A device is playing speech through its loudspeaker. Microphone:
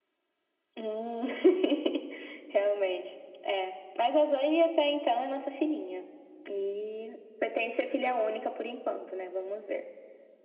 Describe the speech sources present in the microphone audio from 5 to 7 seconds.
echo only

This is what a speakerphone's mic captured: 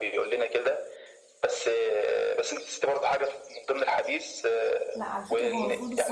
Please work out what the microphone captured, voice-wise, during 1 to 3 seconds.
echo only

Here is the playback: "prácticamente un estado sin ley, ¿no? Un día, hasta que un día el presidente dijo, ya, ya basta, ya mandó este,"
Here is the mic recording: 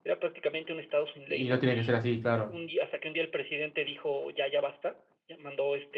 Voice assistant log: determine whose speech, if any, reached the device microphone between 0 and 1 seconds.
echo only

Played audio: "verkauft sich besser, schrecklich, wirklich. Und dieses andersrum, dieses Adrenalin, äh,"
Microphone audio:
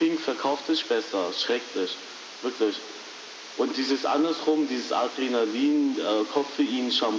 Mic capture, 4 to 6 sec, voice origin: echo only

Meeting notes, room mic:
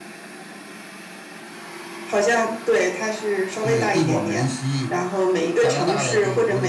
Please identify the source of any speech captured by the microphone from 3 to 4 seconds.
echo only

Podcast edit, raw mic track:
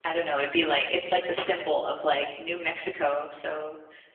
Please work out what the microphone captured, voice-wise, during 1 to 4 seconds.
user only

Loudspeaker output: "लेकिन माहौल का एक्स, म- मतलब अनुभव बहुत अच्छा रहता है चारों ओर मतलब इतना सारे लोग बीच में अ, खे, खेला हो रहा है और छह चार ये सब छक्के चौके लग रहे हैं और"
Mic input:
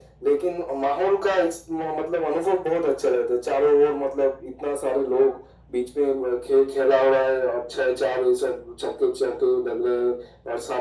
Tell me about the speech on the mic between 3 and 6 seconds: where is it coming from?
echo only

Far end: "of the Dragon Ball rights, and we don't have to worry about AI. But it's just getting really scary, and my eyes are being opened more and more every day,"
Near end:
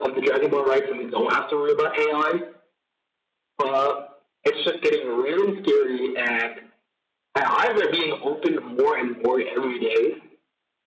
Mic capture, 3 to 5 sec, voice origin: echo only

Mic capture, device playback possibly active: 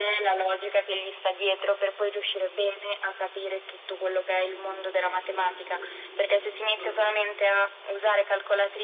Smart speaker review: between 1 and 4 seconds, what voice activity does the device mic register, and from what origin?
echo only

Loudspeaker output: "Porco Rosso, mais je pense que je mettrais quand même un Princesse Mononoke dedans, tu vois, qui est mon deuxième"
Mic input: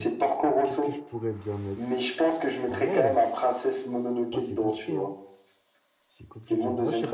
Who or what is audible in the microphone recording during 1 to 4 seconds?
both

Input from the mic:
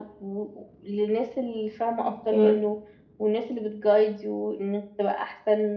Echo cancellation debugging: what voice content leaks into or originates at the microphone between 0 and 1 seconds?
echo only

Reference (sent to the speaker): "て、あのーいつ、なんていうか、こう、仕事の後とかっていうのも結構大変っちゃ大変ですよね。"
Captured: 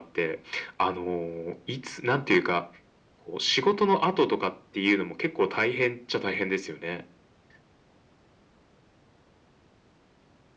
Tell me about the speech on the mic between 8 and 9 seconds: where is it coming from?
neither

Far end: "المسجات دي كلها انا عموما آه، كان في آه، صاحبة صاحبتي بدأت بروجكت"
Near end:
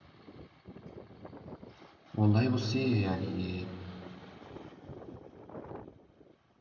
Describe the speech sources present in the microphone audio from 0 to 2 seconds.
neither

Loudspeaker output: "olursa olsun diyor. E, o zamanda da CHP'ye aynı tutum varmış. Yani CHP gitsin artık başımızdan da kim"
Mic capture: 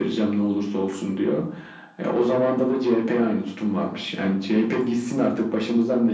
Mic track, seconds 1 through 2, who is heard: echo only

